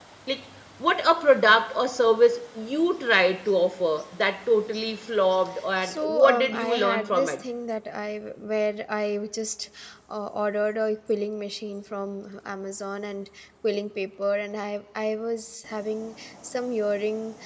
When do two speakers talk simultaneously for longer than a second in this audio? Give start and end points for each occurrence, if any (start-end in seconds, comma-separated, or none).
5.8-7.4